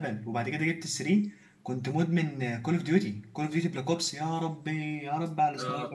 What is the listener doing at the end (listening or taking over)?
listening